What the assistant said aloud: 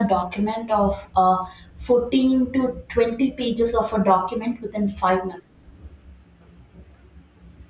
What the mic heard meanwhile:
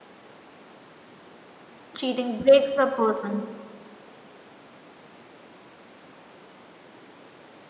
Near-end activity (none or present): present